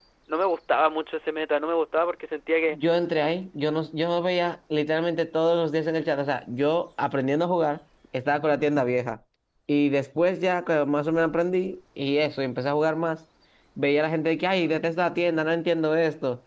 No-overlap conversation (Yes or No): Yes